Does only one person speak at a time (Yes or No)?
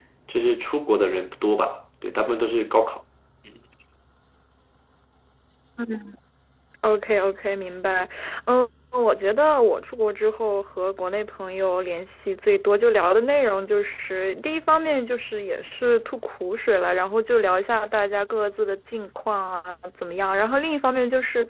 Yes